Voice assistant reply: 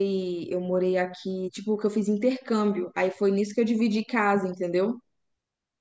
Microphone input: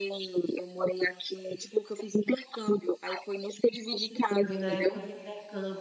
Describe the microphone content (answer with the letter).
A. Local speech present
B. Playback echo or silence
A